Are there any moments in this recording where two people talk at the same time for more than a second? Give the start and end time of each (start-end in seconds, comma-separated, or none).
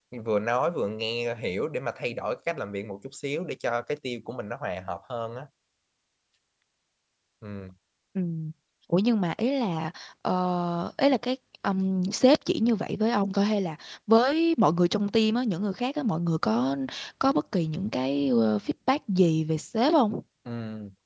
none